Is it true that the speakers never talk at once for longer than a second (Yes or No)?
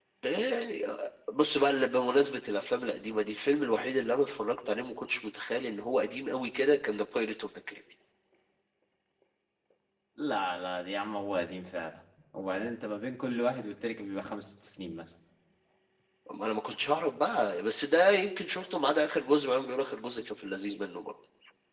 Yes